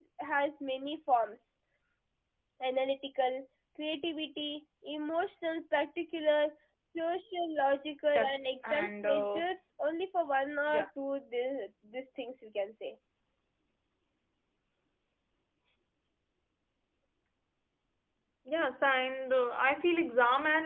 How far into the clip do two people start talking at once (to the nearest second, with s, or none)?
8 s